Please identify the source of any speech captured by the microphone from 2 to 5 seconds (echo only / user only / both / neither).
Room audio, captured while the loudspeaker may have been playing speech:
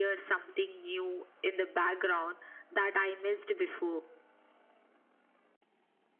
echo only